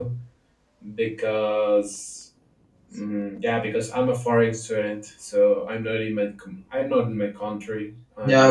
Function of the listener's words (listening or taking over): taking over